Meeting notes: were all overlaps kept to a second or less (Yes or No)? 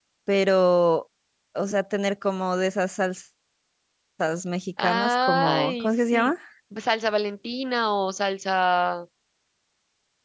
No